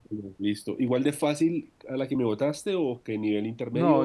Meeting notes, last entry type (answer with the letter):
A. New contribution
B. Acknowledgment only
A